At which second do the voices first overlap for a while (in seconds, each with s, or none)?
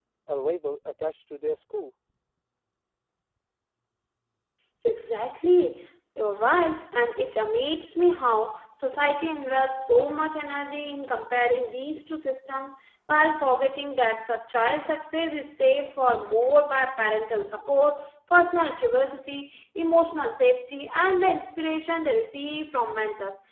none